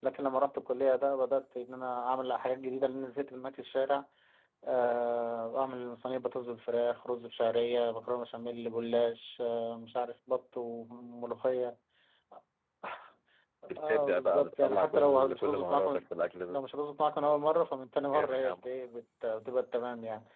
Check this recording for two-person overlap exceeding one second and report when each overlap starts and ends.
13.8-16.0

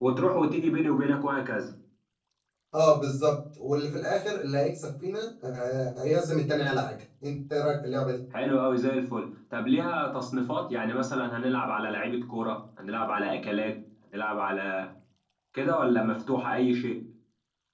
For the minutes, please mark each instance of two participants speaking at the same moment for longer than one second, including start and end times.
none

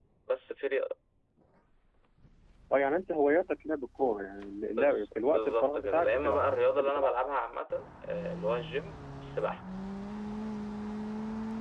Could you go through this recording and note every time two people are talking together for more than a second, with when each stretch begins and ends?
4.7-7.1

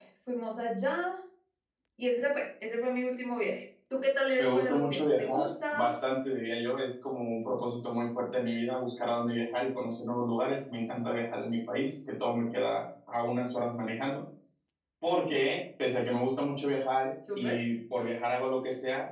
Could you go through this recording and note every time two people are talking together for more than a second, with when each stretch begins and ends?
4.4-5.8

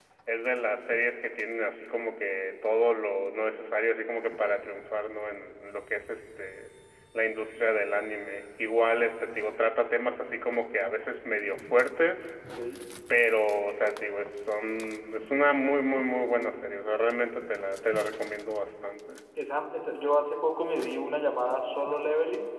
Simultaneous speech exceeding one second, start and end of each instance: none

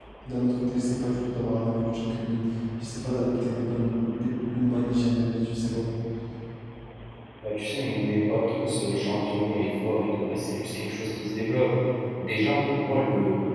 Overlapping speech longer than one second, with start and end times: none

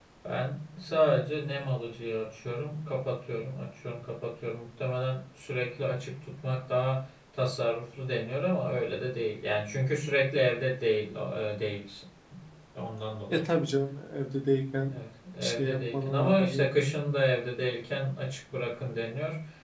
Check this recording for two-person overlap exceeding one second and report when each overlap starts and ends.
15.4-16.7

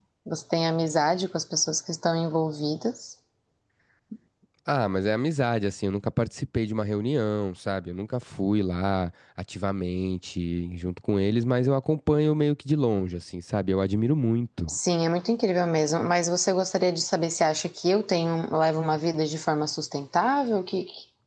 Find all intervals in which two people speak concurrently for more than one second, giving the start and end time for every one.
none

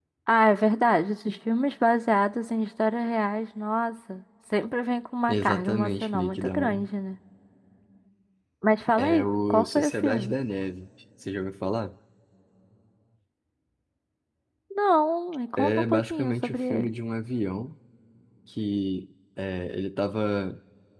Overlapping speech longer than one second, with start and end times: 5.3-6.9, 9.0-10.3, 15.6-16.9

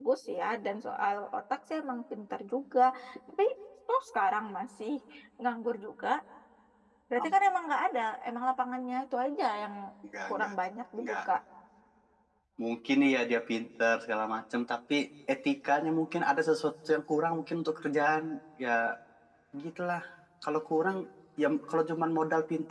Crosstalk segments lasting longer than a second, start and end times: none

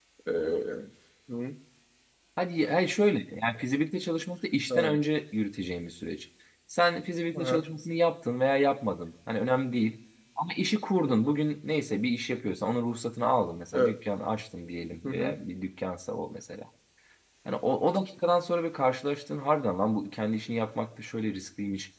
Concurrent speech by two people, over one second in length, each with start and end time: none

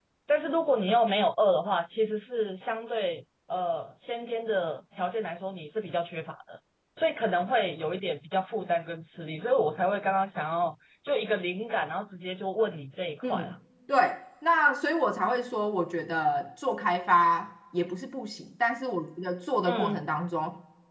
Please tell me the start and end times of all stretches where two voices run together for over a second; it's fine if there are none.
none

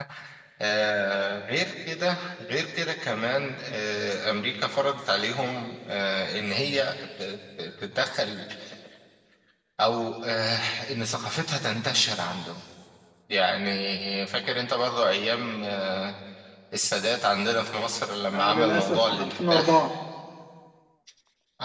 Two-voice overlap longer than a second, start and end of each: 18.3-19.9

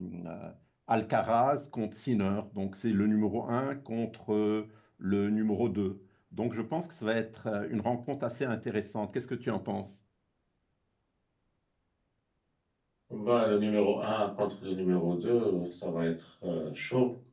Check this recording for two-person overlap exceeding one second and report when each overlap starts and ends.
none

